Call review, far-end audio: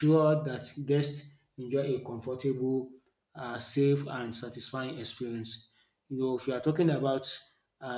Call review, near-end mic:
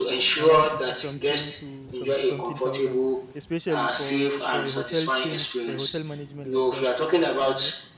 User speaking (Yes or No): Yes